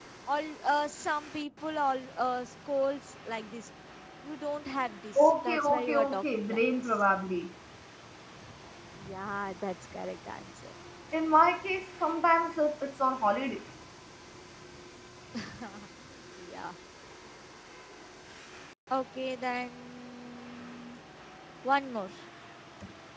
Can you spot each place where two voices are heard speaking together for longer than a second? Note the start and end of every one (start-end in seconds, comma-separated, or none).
5.2-7.0